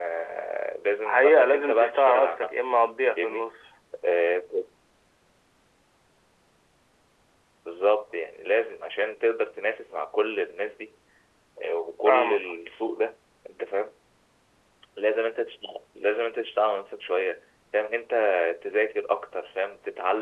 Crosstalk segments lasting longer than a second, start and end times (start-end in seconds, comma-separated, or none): 1.1-2.6